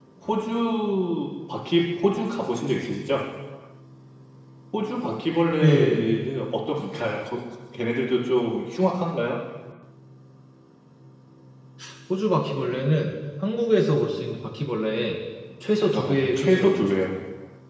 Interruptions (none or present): present